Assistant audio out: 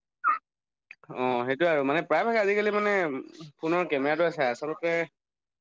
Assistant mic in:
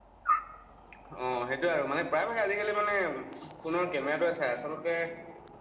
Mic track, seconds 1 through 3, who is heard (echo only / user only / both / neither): echo only